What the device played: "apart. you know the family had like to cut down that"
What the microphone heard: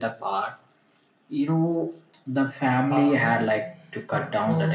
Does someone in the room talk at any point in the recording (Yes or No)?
Yes